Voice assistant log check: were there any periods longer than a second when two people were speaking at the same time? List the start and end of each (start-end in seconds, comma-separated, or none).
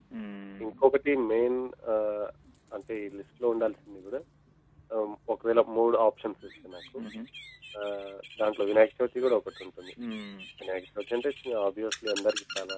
none